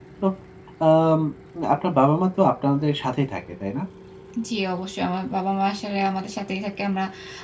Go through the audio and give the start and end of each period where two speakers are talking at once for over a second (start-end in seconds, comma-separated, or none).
none